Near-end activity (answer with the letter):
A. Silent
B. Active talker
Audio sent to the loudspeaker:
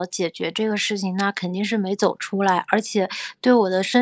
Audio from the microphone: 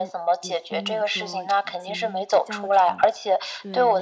B